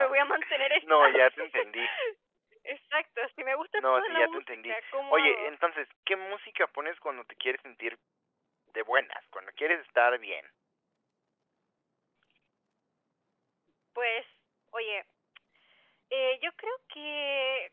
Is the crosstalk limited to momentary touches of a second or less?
No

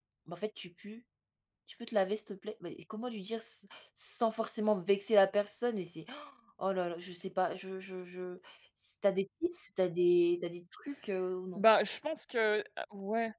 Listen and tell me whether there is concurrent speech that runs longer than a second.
No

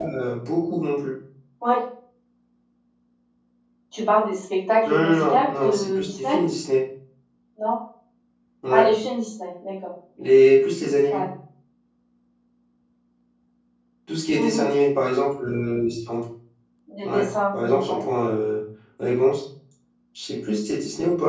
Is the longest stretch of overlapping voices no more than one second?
No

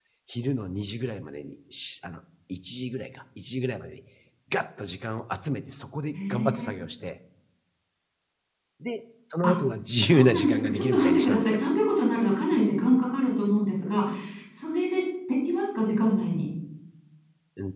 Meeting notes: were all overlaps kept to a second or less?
No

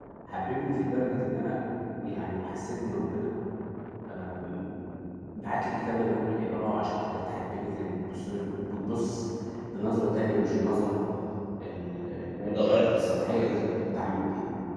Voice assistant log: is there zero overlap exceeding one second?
No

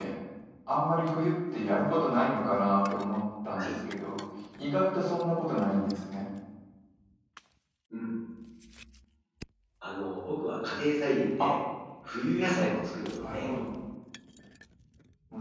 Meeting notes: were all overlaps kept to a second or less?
Yes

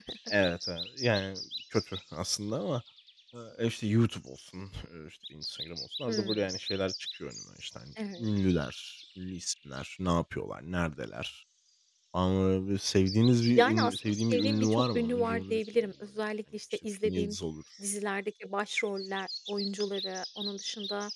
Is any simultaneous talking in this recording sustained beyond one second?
Yes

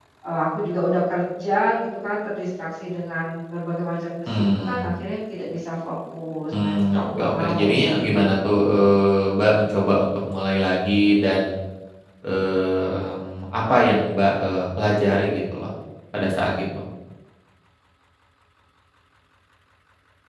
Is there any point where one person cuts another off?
Yes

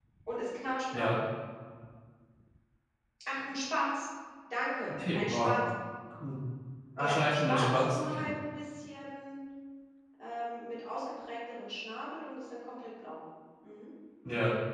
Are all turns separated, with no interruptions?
No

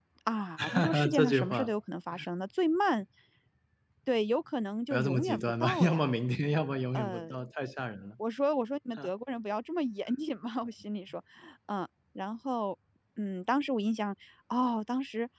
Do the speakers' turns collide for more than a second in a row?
Yes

